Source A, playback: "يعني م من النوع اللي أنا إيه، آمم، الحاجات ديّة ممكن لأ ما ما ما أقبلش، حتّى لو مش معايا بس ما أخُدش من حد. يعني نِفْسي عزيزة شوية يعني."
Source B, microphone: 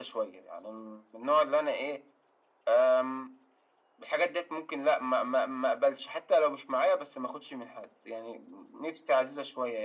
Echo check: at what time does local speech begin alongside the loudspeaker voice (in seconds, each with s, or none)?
none